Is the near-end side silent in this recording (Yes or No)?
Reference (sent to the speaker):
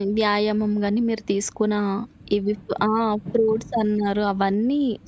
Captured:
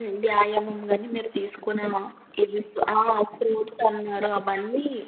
Yes